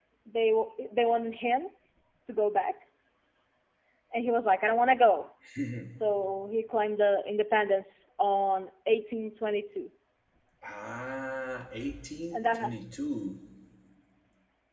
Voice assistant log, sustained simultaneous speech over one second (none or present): none